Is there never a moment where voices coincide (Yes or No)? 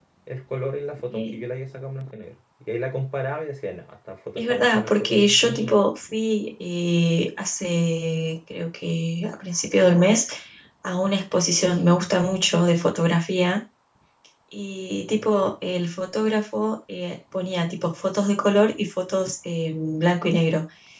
No